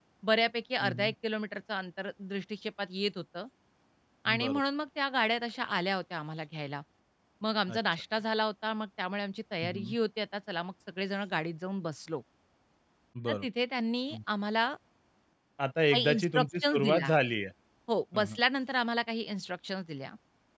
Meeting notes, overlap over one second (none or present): present